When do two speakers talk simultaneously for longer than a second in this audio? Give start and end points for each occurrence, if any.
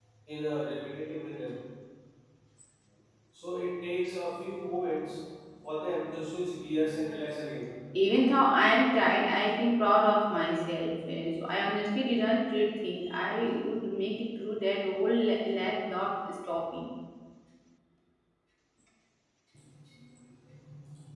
none

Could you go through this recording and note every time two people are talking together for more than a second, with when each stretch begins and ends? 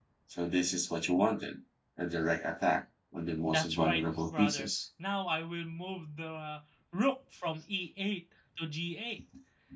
3.5-4.7

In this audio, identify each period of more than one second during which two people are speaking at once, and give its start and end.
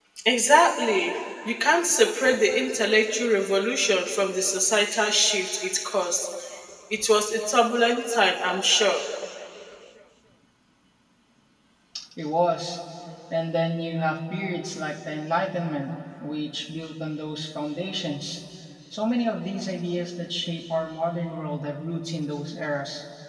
none

